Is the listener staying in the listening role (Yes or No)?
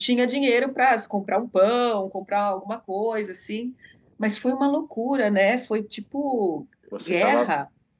No